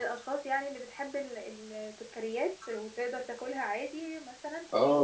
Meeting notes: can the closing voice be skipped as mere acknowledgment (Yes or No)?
No